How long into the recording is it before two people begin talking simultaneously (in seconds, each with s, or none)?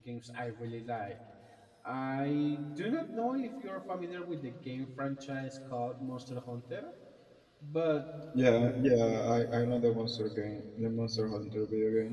none